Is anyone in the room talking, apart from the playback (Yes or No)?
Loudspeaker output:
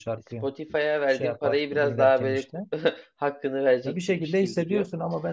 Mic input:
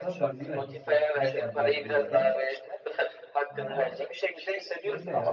Yes